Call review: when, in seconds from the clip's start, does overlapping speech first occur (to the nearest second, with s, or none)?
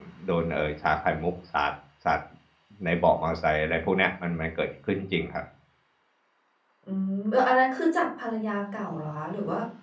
none